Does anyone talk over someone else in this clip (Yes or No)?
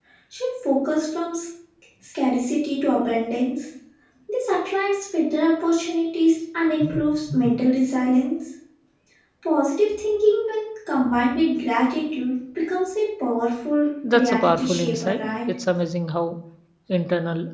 Yes